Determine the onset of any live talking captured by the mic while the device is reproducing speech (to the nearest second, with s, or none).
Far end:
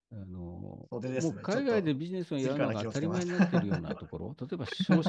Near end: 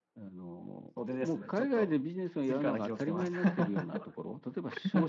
none